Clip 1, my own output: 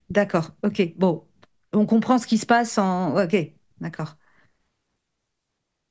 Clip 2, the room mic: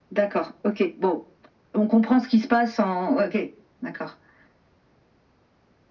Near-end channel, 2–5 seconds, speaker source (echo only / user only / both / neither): echo only